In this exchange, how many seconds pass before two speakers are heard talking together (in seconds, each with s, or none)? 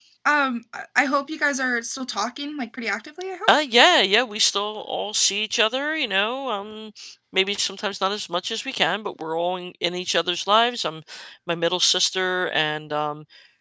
none